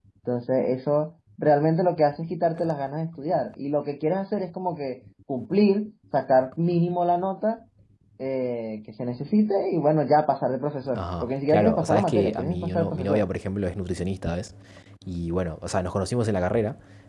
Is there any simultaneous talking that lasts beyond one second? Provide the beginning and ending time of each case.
10.9-13.2

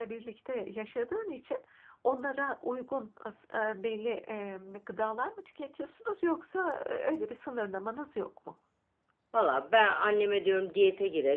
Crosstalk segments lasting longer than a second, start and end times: none

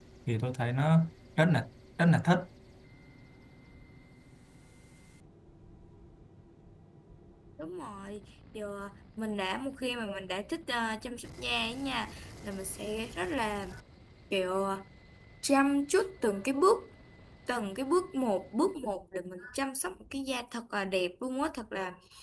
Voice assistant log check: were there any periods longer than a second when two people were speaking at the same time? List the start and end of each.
none

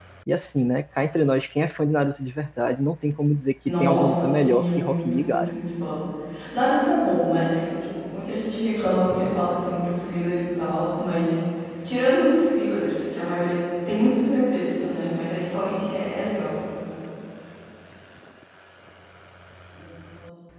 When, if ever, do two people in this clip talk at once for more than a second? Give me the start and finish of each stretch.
3.8-5.5

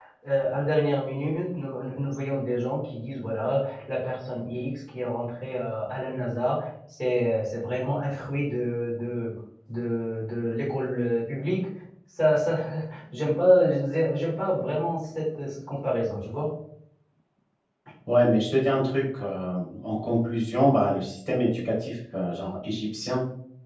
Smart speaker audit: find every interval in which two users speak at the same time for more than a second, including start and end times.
none

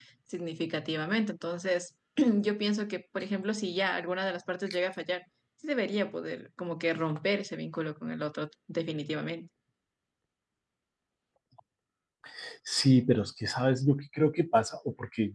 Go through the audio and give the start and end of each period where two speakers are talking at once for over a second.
none

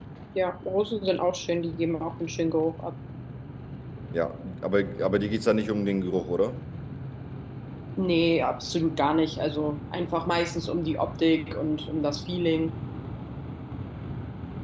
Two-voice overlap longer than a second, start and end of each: none

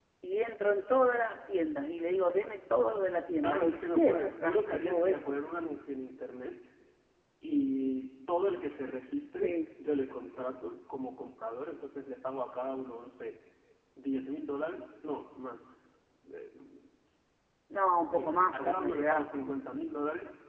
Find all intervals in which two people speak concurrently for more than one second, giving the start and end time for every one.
3.4-5.4, 18.1-19.6

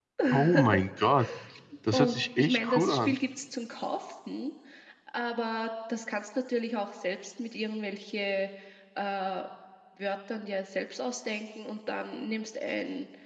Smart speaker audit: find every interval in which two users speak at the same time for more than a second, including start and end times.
1.9-3.1

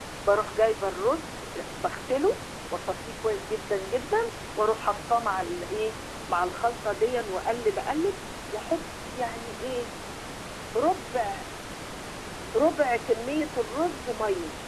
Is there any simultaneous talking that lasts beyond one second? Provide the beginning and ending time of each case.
none

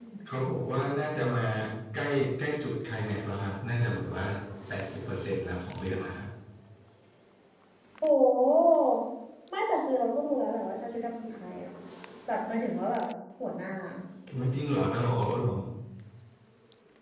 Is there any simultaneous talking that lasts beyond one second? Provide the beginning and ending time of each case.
none

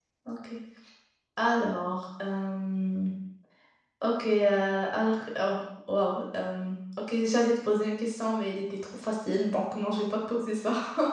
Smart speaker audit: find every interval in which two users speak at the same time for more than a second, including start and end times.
none

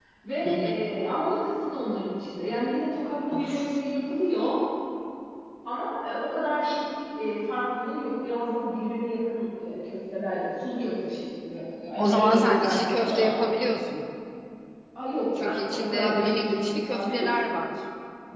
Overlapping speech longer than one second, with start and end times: 12.0-13.3, 15.4-17.3

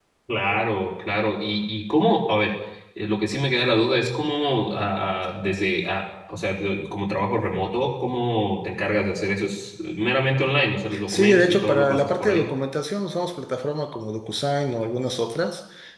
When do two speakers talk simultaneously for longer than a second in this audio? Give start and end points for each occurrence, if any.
11.1-12.4

